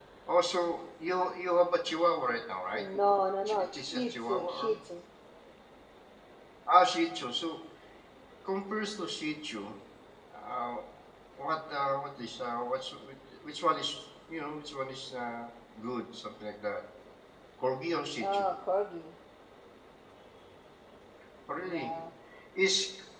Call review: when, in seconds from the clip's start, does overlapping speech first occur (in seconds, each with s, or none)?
3.5 s